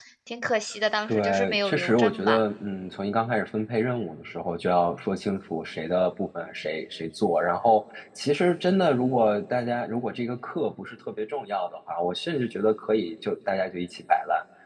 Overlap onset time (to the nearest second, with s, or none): 1 s